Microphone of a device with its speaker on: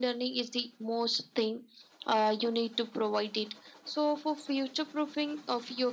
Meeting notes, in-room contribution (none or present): none